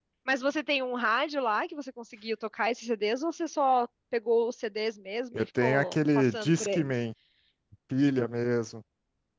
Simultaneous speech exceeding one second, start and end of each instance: 5.3-6.9

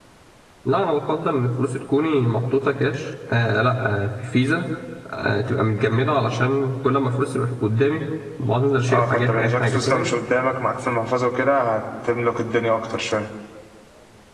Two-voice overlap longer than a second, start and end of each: 8.9-10.1

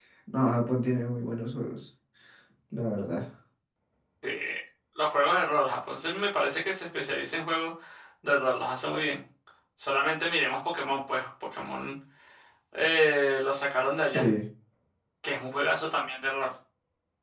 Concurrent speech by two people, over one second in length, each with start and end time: none

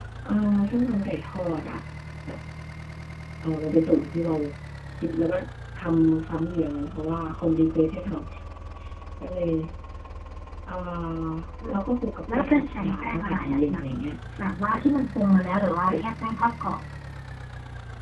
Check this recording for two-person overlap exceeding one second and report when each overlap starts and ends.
12.3-13.8

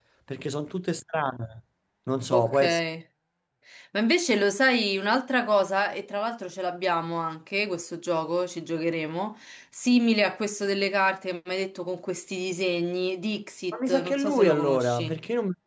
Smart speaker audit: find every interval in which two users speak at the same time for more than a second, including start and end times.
13.7-15.1

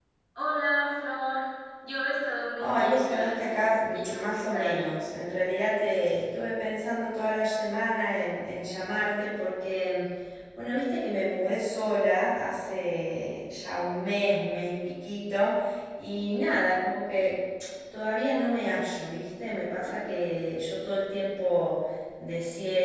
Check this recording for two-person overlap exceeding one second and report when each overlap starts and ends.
2.6-4.8

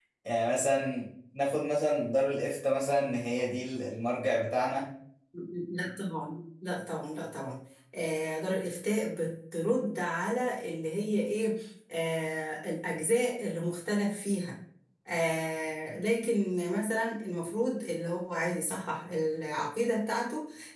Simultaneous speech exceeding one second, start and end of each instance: none

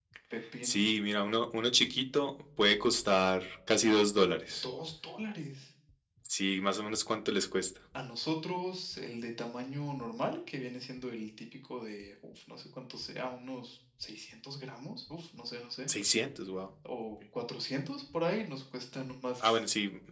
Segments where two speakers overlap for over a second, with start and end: none

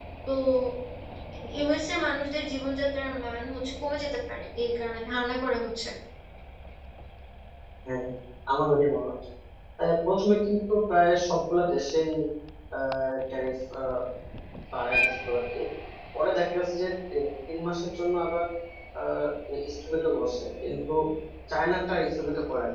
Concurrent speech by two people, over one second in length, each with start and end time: none

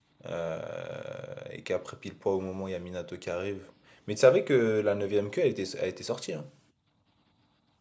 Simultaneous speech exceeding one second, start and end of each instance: none

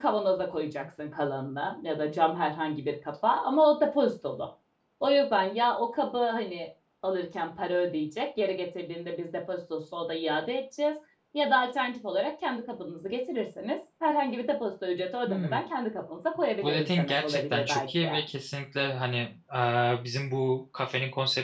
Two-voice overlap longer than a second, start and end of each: 16.6-18.1

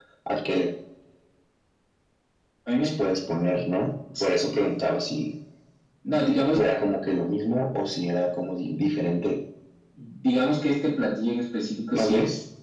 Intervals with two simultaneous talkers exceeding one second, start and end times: none

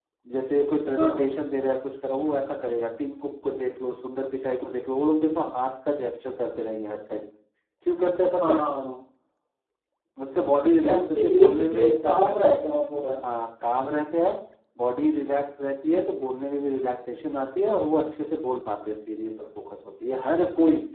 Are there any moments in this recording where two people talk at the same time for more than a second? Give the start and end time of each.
10.8-12.3

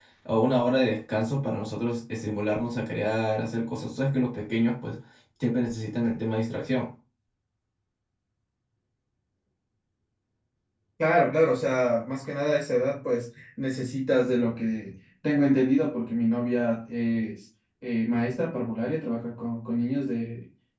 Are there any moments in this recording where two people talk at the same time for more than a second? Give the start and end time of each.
none

